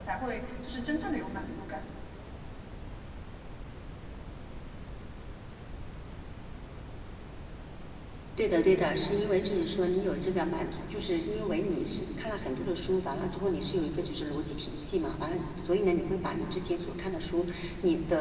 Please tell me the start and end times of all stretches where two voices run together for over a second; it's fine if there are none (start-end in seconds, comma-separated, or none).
none